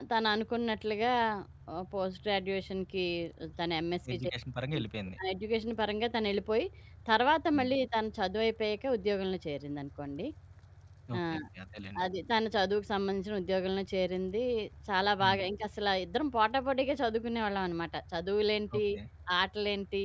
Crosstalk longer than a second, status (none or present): none